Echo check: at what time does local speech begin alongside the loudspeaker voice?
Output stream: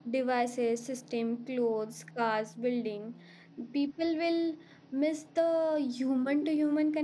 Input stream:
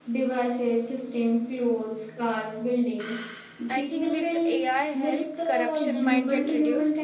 3.7 s

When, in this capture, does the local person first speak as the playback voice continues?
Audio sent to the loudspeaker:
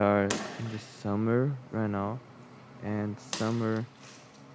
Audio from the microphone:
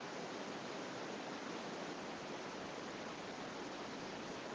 none

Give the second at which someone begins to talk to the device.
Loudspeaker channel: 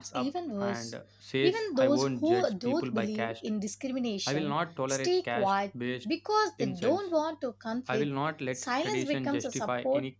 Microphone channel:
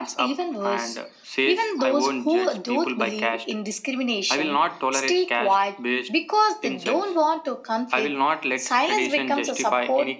none

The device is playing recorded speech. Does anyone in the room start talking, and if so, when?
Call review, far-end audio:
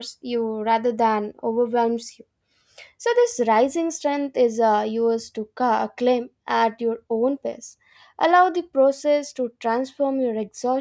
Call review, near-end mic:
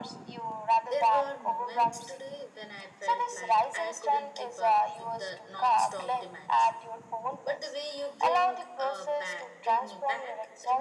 0.8 s

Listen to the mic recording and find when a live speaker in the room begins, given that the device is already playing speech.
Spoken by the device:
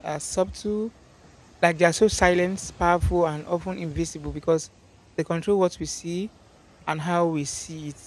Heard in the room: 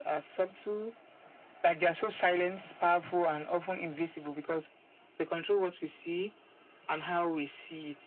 none

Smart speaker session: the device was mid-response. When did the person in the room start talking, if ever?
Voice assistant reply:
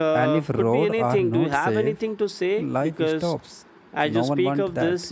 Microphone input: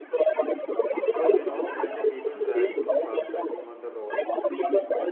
1.0 s

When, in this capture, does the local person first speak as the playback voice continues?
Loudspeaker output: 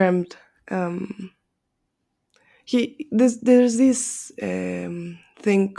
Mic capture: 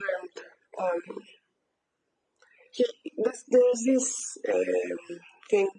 none

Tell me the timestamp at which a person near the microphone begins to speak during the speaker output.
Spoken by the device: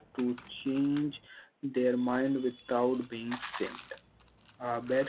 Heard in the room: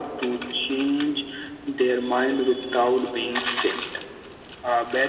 none

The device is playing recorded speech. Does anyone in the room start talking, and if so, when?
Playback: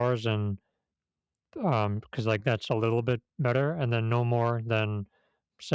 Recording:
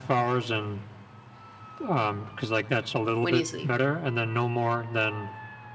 3.2 s

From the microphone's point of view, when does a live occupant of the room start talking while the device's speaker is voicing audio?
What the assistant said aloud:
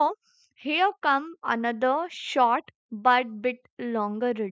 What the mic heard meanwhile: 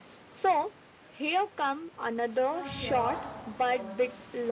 2.5 s

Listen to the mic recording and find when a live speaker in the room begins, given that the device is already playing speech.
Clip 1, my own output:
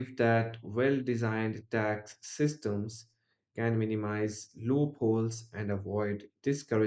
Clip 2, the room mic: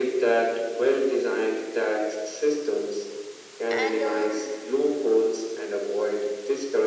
3.7 s

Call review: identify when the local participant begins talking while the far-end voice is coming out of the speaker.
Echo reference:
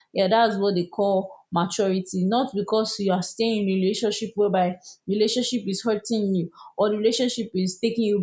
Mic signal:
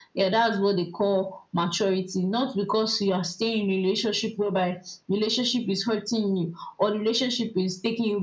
none

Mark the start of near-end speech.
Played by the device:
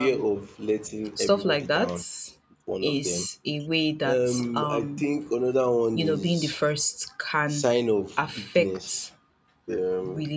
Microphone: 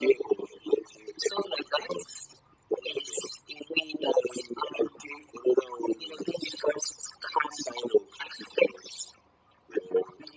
none

